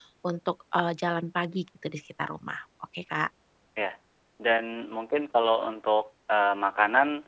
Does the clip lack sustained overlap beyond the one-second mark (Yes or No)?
Yes